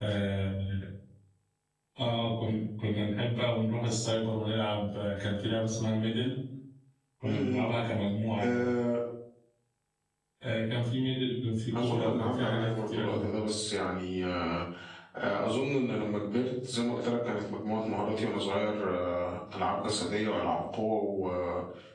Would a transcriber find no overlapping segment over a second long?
No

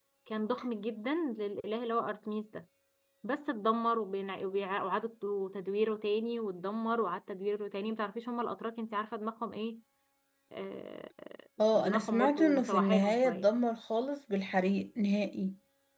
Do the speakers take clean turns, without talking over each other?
No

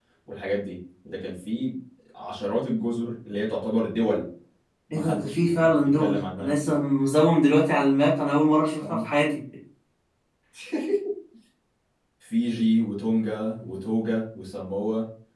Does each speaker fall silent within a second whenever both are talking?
No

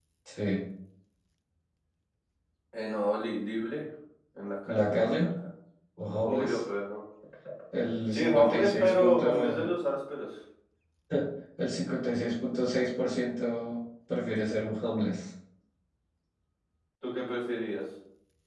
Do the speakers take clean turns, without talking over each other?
No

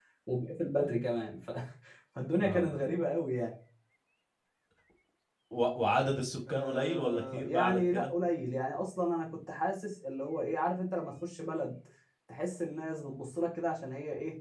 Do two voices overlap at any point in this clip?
Yes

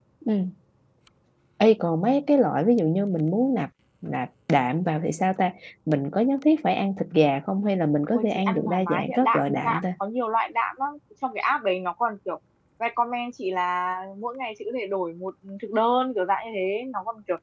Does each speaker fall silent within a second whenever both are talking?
No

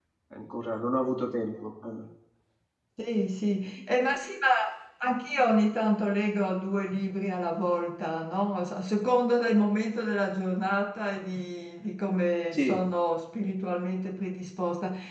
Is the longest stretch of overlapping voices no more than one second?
Yes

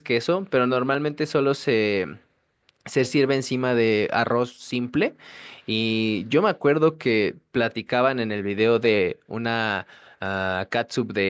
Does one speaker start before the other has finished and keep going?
No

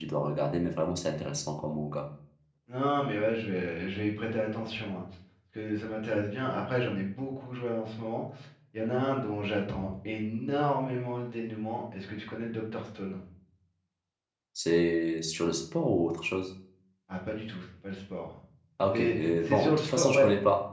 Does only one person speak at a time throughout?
No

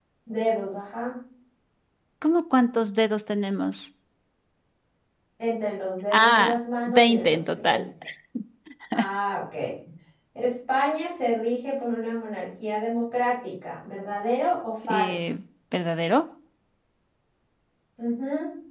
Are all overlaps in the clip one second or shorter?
No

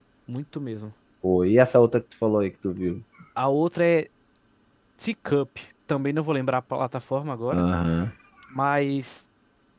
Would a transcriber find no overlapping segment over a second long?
Yes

